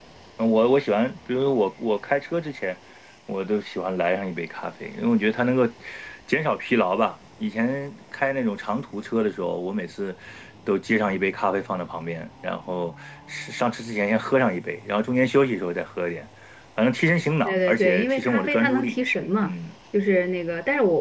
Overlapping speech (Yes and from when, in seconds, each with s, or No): Yes, from 17.4 s